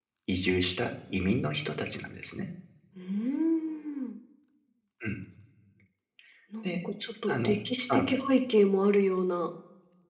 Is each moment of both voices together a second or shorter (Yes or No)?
Yes